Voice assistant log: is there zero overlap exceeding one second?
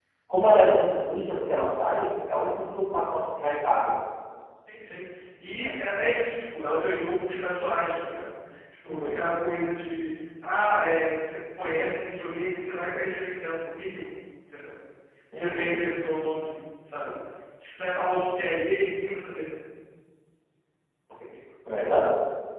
Yes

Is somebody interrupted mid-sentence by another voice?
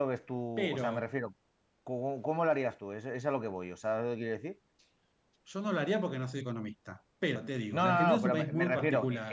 Yes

